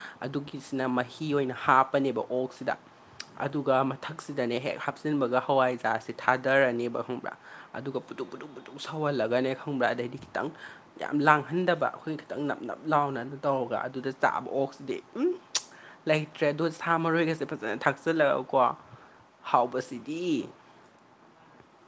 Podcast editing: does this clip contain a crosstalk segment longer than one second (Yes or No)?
No